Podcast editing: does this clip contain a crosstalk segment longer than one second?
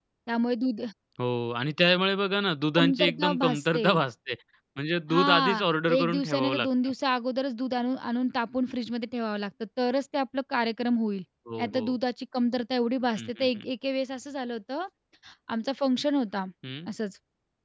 Yes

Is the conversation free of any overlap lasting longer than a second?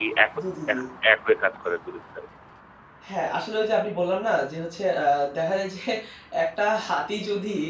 Yes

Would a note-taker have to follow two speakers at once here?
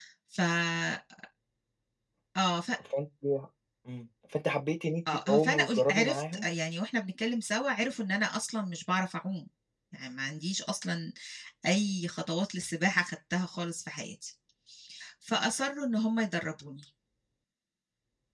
Yes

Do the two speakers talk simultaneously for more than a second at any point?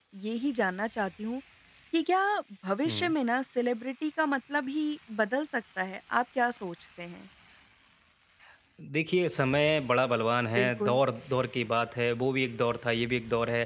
No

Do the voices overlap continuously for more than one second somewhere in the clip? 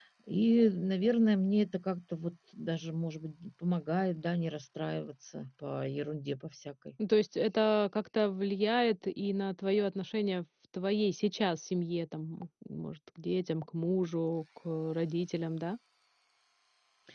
No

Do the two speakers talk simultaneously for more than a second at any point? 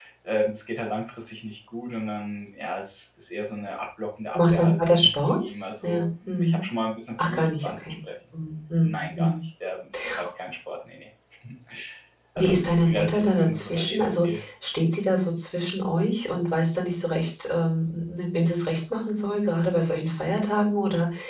Yes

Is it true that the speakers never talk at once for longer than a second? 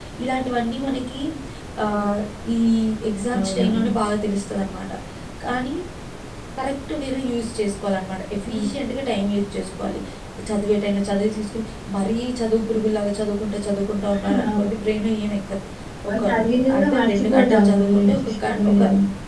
No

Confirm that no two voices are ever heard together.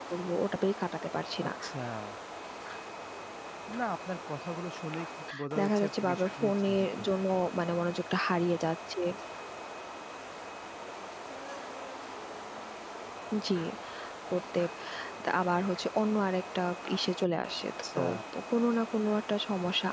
No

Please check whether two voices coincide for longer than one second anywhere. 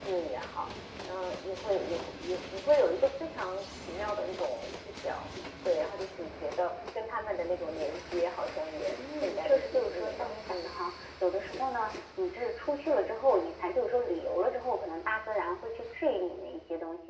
Yes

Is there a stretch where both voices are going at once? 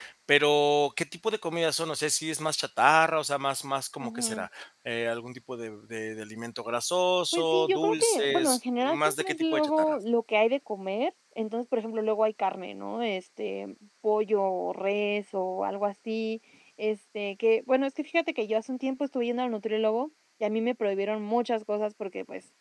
Yes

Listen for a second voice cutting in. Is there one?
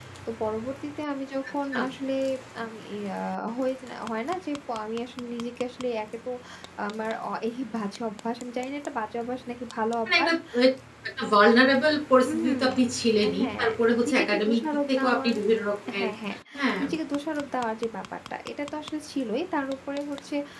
Yes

